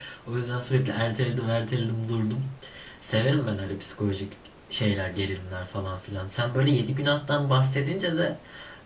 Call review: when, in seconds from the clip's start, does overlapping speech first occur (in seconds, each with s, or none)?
none